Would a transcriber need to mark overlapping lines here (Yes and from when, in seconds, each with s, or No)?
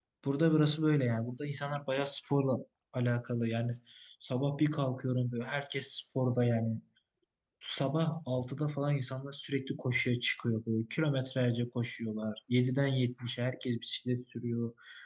No